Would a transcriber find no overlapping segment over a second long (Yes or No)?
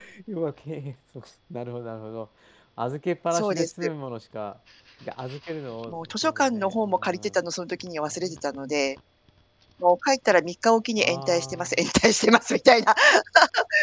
No